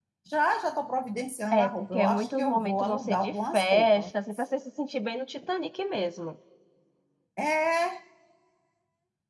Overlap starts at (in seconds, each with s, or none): 1.5 s